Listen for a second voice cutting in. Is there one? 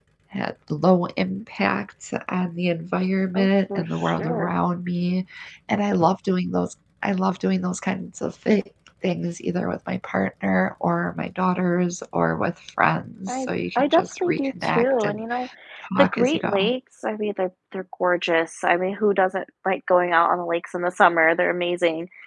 Yes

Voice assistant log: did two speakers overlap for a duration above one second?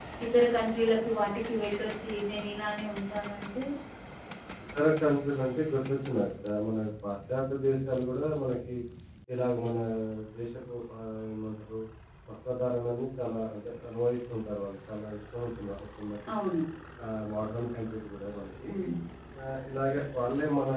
No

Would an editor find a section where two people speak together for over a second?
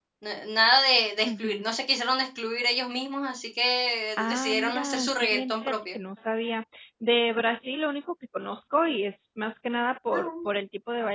Yes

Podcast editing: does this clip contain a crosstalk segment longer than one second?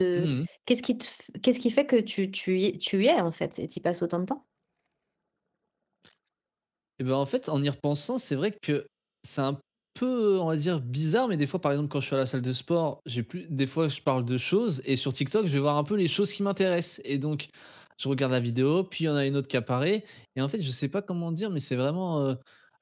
No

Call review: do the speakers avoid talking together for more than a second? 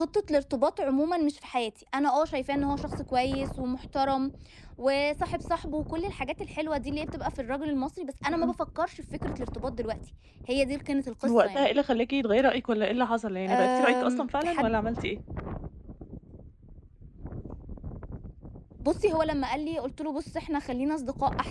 No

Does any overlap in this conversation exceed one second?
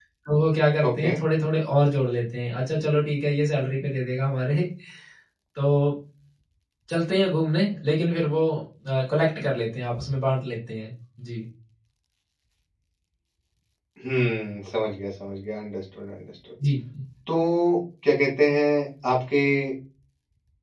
No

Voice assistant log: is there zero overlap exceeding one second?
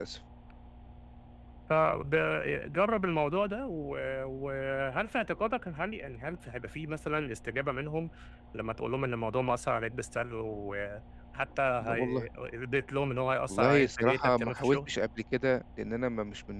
No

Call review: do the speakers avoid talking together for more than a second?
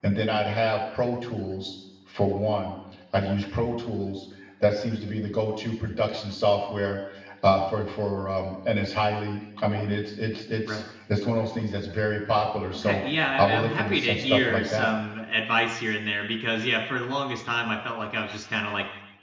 No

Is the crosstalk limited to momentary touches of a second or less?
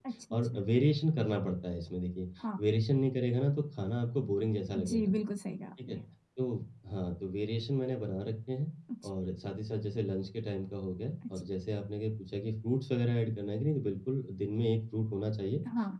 Yes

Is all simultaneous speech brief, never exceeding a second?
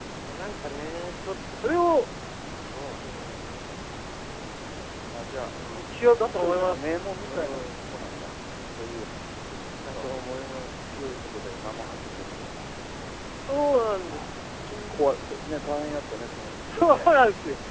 No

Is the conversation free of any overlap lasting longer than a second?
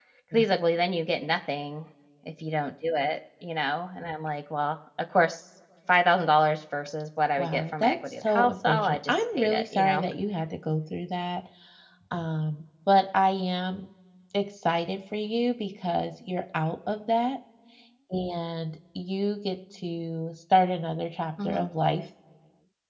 No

